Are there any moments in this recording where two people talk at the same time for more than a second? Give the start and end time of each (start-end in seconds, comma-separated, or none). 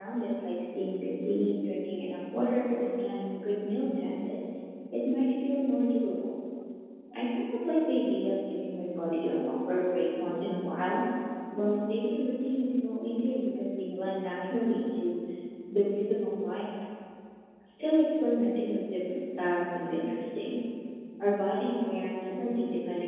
none